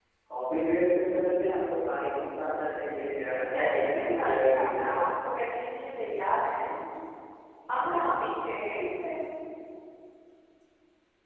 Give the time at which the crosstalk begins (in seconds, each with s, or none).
3.5 s